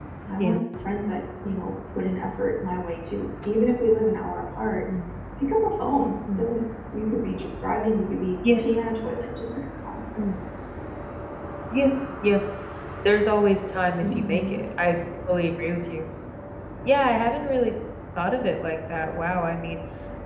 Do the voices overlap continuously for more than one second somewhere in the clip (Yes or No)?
No